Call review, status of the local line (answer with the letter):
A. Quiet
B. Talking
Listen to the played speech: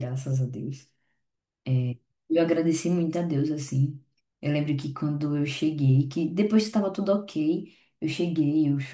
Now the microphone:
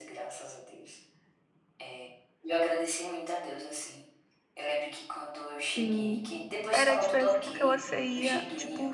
B